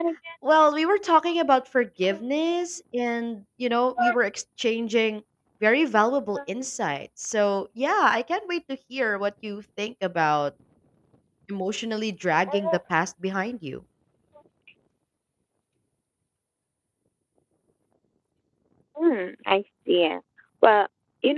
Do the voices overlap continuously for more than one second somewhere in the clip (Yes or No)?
No